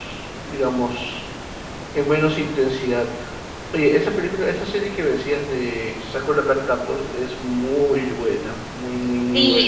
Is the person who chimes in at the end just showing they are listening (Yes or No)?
No